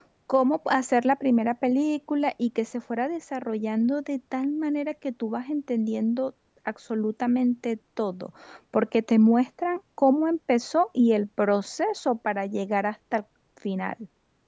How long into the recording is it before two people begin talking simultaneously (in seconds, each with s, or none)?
none